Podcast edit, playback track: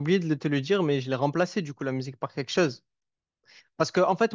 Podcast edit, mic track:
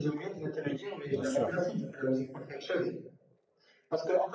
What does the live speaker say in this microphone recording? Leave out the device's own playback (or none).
bien sûr.